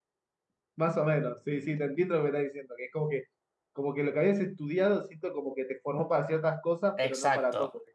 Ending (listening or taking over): taking over